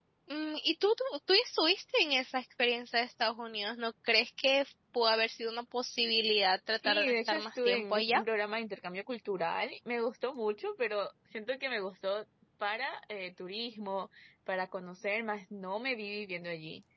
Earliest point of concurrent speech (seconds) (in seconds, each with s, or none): 6.8 s